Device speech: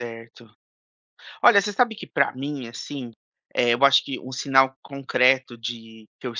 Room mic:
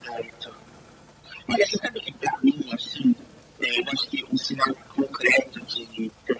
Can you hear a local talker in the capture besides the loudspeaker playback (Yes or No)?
No